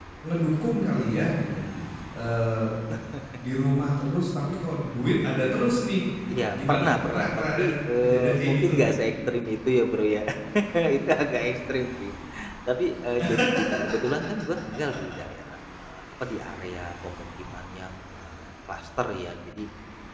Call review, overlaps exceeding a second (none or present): present